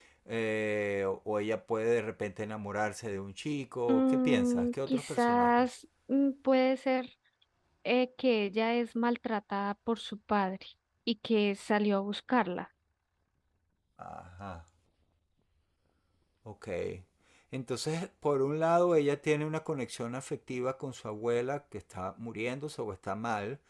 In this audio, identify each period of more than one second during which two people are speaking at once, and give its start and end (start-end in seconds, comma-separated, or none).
3.9-5.8